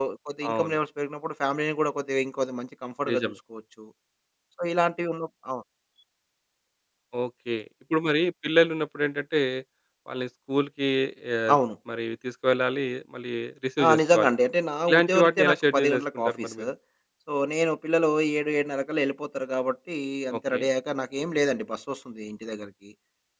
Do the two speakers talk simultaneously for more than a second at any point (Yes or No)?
Yes